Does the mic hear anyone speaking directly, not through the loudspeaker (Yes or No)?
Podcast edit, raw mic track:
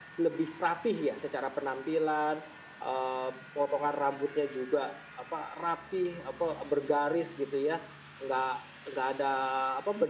No